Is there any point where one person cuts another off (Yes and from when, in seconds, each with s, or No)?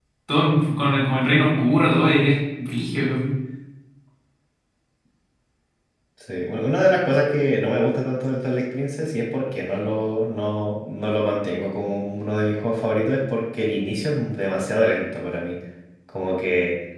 No